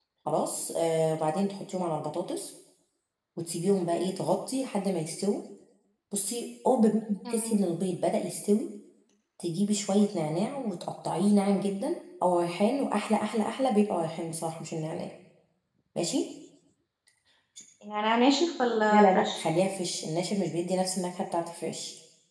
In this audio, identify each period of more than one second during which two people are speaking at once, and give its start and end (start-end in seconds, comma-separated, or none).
none